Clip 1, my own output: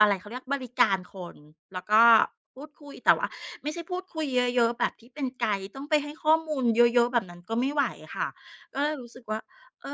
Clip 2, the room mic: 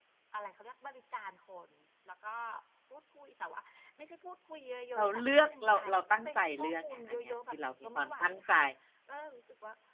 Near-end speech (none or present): present